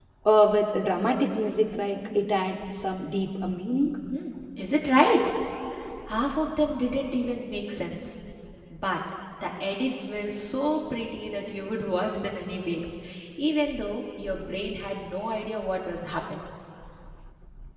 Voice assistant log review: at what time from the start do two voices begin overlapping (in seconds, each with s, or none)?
none